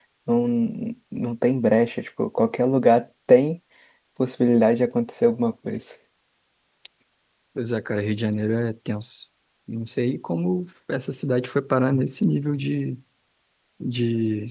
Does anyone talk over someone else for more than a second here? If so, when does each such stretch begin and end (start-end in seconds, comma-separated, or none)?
none